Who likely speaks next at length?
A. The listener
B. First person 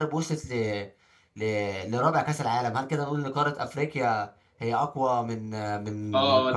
A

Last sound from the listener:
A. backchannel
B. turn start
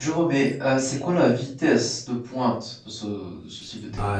B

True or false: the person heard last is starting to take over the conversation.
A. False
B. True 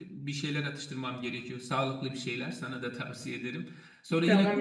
B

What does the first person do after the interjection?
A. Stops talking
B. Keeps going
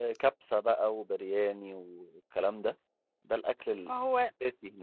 B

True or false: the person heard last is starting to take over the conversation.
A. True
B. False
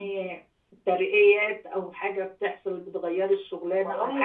B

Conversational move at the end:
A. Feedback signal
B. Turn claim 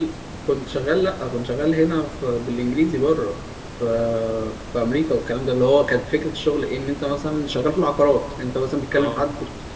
A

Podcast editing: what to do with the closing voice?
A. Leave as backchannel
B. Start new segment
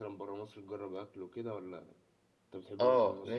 B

